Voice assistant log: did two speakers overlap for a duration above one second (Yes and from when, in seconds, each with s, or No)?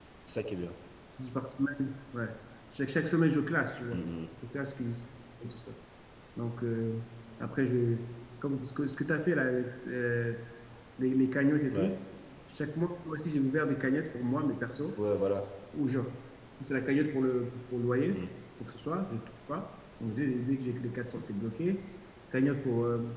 No